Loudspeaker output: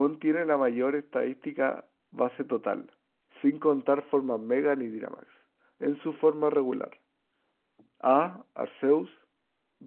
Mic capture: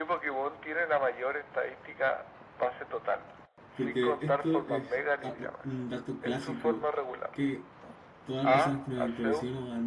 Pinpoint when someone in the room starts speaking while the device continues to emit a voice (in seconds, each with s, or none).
3.7 s